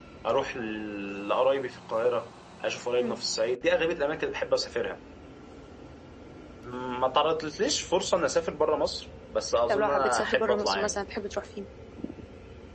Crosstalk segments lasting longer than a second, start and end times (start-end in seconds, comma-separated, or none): 9.7-11.0